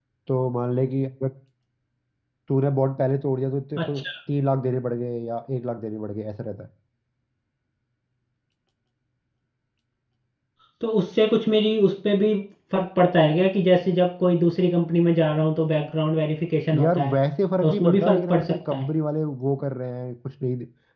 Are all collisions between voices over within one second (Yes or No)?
No